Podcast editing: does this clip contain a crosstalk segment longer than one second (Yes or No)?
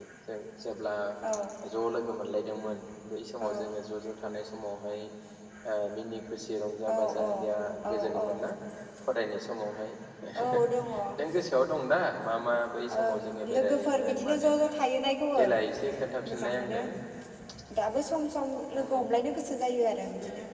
Yes